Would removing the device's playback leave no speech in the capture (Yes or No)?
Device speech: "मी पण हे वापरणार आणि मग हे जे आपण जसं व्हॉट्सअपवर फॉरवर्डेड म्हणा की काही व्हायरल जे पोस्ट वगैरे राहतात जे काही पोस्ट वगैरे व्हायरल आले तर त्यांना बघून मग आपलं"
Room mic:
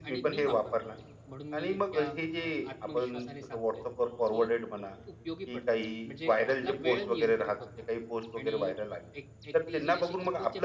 No